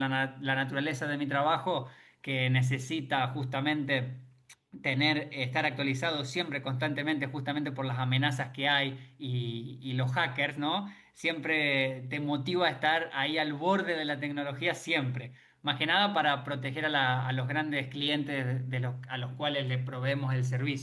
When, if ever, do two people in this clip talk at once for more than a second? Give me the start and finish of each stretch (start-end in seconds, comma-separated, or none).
none